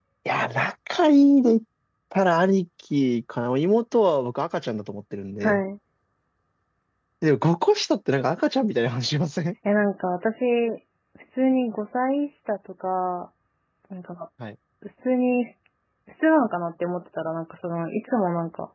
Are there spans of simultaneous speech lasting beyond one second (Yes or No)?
No